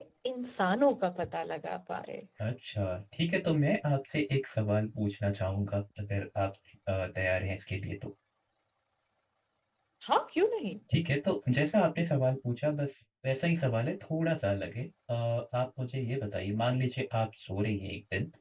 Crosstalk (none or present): none